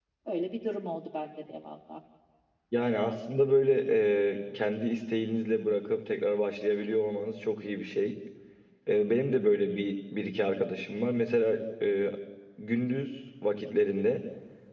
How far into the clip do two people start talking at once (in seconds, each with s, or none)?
none